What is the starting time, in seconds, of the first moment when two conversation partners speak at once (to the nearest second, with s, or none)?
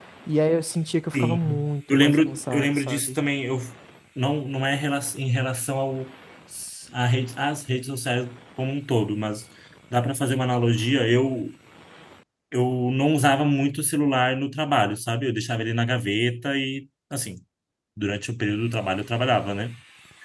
1 s